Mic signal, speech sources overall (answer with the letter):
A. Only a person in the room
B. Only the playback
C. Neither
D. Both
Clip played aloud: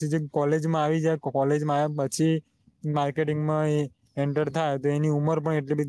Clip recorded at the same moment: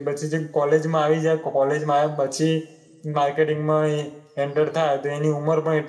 B